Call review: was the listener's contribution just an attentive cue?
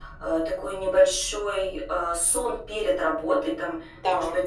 Yes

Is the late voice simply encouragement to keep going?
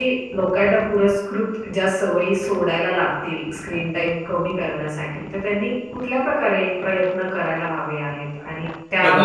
Yes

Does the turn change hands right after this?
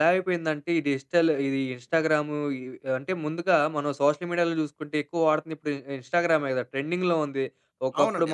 No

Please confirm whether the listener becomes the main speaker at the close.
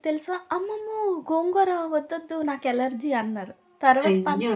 No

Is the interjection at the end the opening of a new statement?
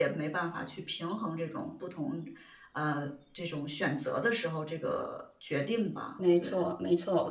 Yes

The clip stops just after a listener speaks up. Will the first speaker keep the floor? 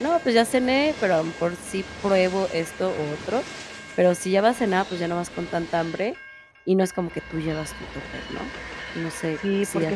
No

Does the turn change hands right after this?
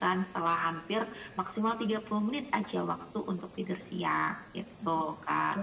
Yes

